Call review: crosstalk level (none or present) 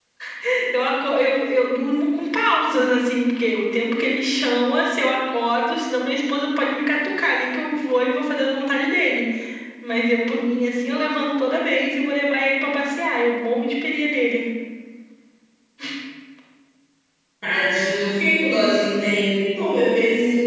none